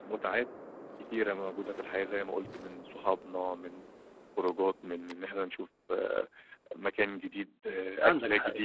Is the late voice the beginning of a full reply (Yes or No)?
Yes